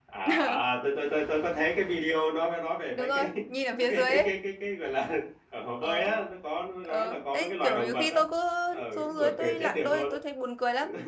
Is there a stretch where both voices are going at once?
Yes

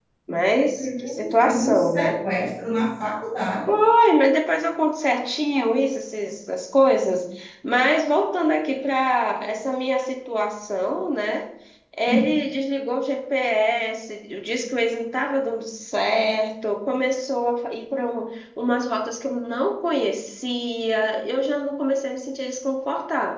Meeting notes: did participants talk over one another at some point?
Yes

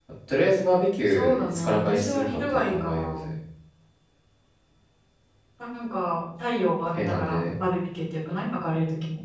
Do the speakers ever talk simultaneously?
Yes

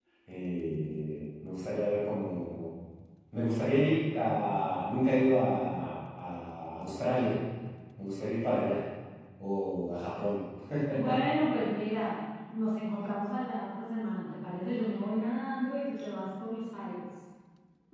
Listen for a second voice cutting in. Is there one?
No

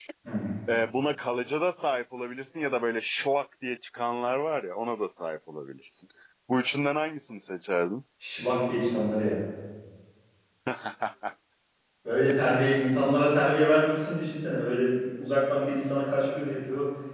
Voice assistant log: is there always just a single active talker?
Yes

